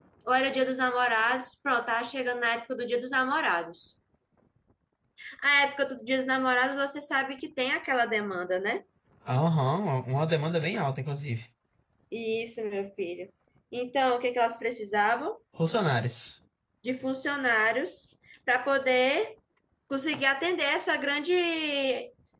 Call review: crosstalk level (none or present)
none